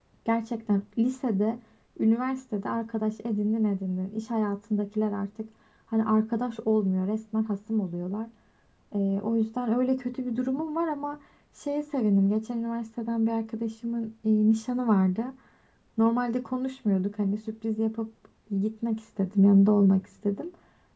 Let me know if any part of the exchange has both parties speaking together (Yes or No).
No